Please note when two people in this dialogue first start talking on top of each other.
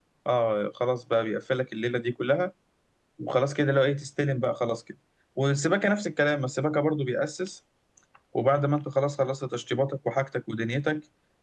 none

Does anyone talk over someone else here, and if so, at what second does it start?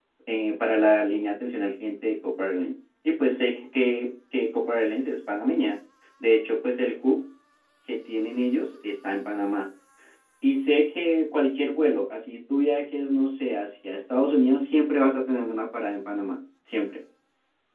none

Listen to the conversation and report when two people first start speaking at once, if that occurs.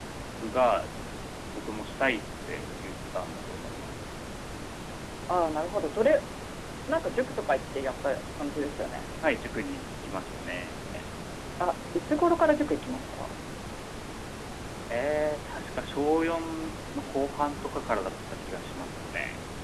none

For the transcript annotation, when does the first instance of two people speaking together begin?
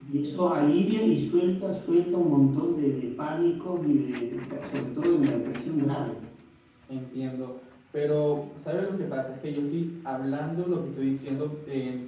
none

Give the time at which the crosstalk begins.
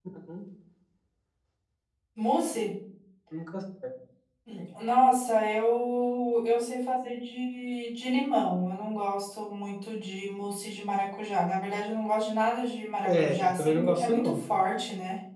13.1 s

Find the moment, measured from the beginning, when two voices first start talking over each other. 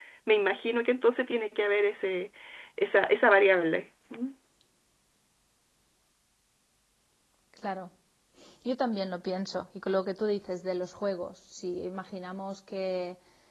none

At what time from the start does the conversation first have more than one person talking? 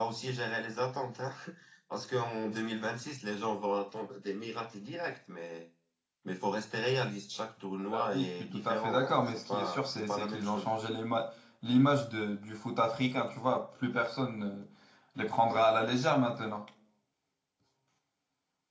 7.9 s

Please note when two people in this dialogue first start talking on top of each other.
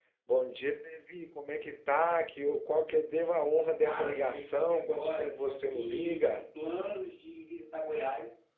3.8 s

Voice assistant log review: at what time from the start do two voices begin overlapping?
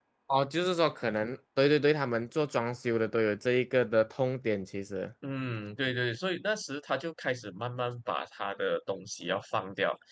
none

